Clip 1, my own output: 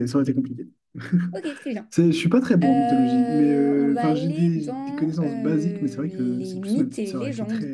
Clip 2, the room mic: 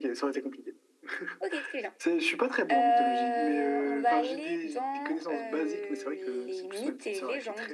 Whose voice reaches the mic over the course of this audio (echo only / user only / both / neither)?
echo only